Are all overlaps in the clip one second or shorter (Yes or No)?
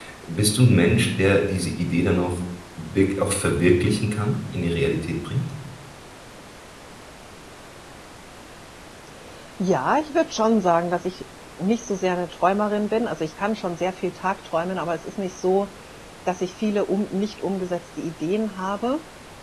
Yes